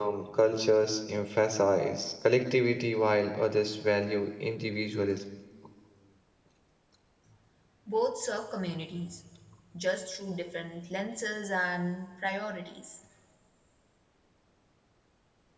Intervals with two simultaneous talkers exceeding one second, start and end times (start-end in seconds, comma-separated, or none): none